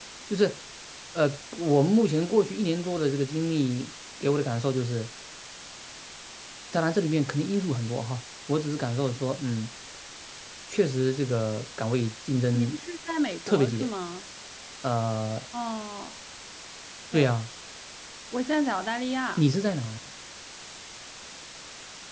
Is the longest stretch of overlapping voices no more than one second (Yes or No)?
Yes